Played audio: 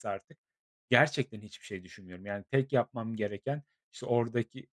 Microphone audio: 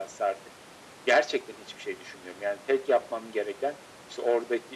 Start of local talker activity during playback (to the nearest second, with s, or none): none